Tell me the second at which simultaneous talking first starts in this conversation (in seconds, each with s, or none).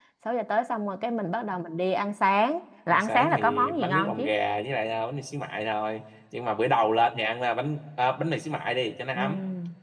2.9 s